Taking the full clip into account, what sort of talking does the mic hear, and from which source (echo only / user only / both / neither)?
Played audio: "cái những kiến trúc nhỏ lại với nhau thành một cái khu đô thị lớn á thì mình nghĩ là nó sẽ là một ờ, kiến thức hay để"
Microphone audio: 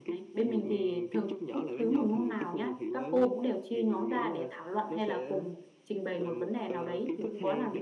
both